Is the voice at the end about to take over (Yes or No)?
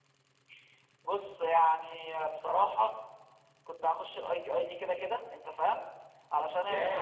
No